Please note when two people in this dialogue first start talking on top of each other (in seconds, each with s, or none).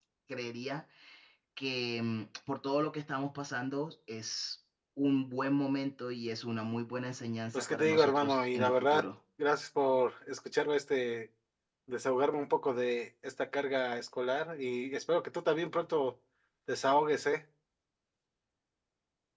7.5 s